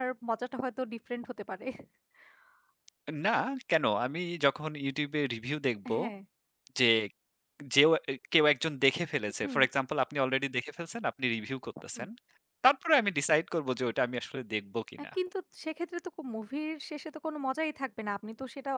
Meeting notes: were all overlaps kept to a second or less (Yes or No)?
Yes